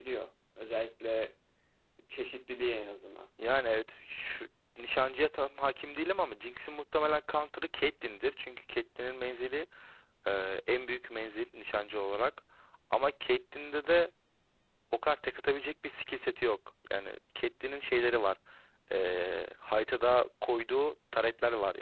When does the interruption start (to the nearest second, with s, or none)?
none